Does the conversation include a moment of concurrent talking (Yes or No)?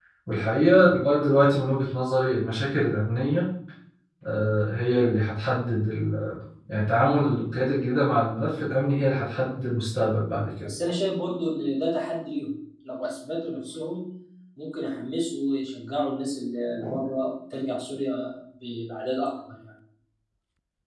No